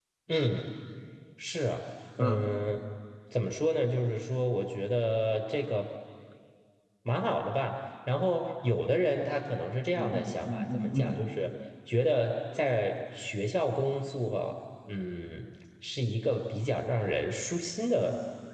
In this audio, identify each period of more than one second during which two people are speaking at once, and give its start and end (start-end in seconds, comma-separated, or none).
9.9-11.2